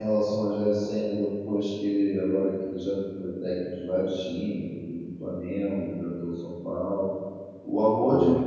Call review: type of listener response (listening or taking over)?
listening